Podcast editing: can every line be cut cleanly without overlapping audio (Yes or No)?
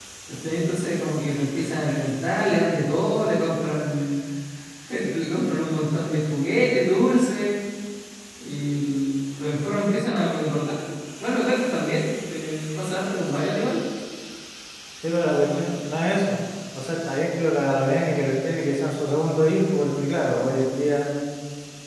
Yes